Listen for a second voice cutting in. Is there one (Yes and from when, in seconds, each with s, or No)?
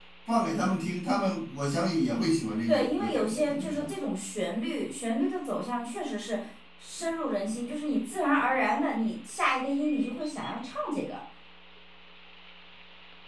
Yes, from 2.7 s